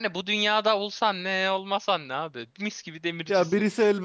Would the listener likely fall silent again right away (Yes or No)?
No